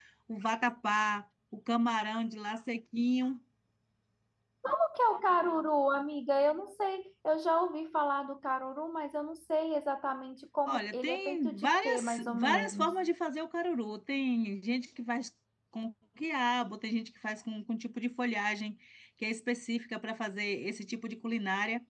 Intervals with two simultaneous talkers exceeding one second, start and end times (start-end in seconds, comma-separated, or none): 10.7-12.9